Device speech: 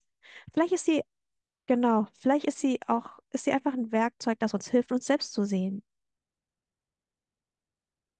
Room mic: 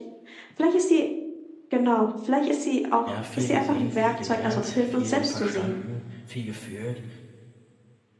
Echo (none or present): present